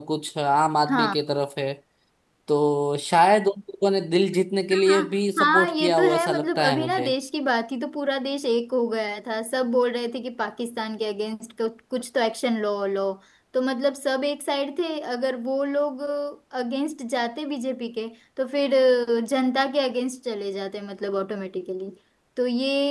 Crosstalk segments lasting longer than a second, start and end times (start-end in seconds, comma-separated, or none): 5.4-7.1